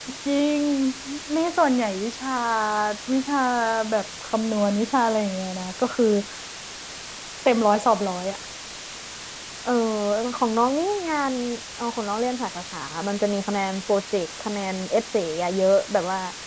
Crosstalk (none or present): none